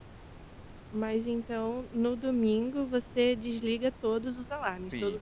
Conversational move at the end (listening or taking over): taking over